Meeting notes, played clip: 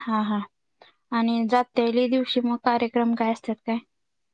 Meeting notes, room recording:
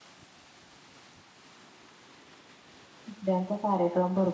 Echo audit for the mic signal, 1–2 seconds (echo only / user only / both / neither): neither